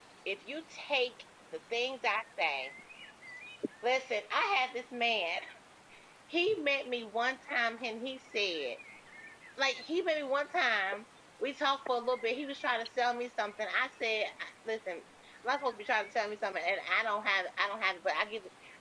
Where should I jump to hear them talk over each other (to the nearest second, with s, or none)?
none